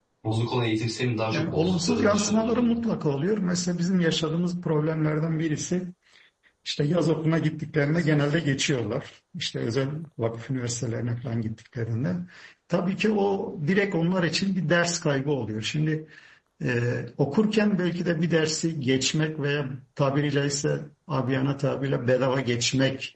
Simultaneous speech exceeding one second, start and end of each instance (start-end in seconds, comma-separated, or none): 1.3-2.8